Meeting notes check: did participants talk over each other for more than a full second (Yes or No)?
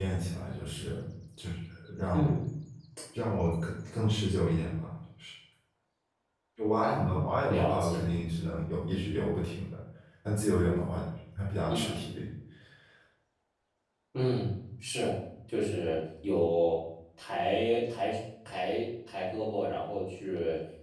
Yes